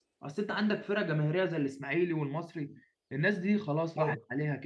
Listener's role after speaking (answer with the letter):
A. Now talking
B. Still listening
B